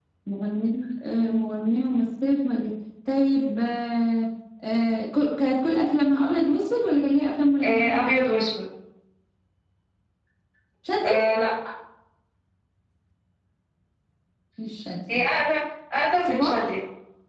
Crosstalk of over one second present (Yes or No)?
No